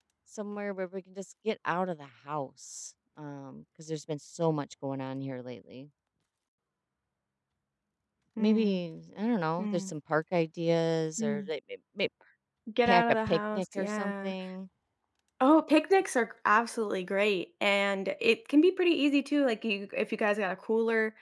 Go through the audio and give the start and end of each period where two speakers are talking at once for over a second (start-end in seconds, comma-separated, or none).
12.8-14.3